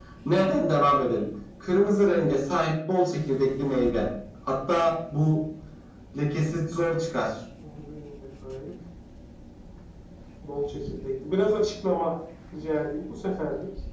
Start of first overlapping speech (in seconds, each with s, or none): none